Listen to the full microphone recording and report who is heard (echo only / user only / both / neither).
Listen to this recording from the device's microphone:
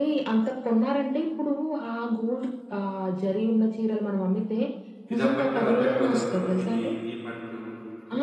both